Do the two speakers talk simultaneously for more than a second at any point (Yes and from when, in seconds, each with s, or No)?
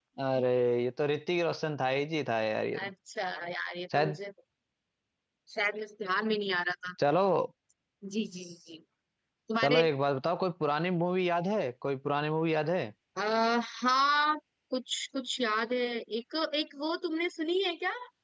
No